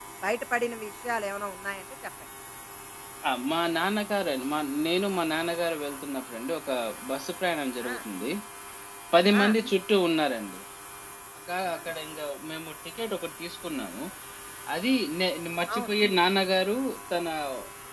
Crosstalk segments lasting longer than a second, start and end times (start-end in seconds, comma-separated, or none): none